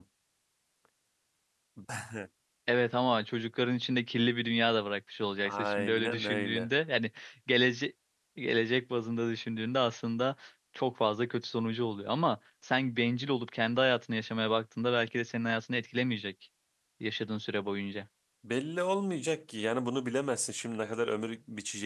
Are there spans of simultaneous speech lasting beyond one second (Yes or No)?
Yes